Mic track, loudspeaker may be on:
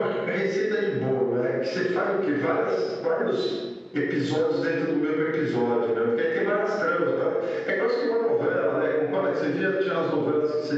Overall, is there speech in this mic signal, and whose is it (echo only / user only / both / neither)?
echo only